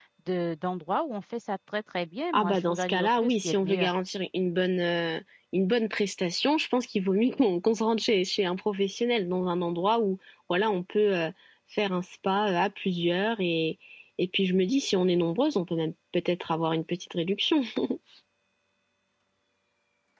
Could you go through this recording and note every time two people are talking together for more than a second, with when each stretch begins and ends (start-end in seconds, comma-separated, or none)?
2.3-3.9